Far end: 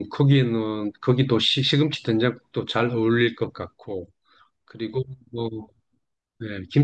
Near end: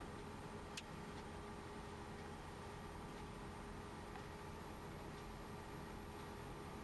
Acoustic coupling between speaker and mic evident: No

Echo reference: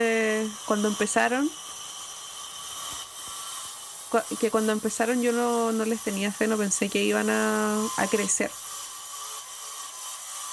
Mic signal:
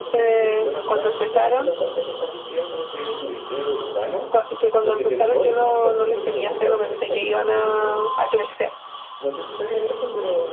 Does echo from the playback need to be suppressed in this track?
Yes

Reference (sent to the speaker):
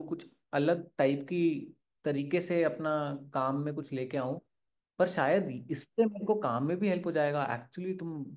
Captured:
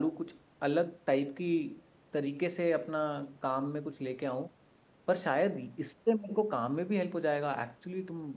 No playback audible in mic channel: No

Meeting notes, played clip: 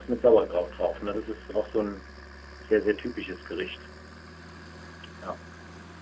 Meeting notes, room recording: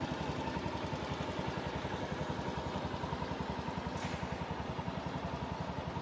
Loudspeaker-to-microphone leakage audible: No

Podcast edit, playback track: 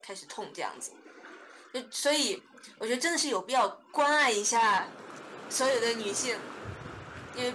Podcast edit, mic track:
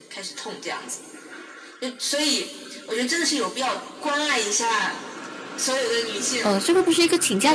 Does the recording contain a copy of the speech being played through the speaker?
Yes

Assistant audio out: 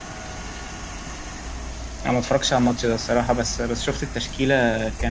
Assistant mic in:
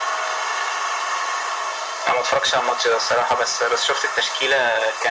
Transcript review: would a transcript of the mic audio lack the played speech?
No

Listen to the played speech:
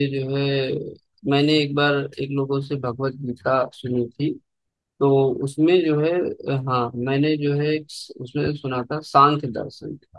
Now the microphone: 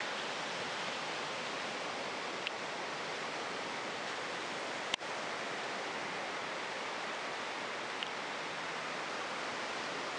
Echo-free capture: Yes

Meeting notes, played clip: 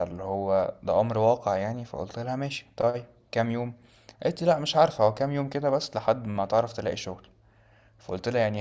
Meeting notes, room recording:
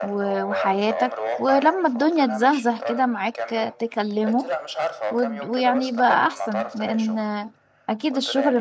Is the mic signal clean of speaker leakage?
No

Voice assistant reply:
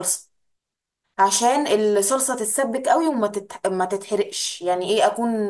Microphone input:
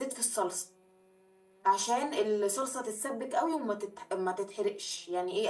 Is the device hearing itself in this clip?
Yes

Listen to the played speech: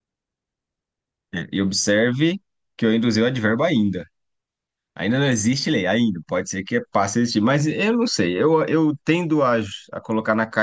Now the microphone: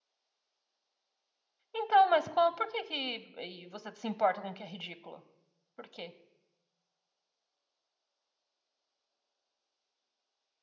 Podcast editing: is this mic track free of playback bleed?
Yes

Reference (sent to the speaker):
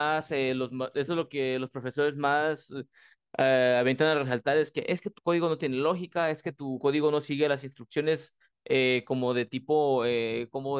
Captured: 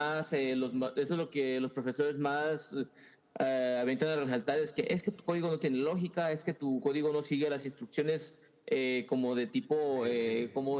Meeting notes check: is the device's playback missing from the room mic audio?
No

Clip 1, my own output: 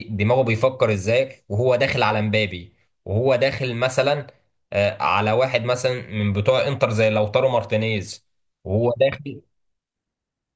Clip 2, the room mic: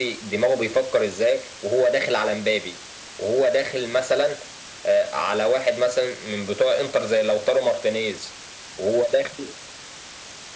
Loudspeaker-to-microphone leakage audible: Yes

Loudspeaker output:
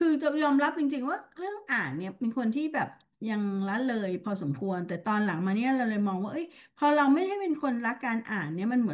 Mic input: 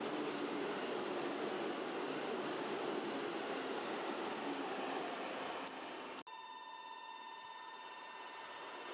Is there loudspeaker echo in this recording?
No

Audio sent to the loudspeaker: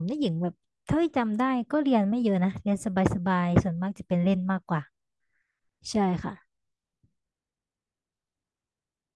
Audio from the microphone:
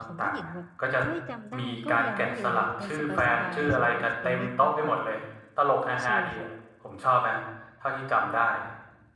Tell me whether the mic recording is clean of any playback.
No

